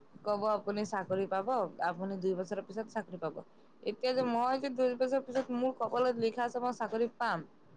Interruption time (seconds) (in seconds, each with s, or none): none